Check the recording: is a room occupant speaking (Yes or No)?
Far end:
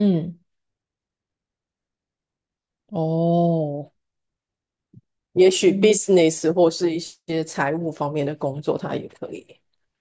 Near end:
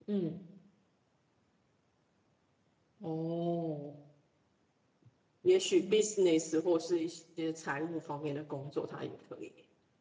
No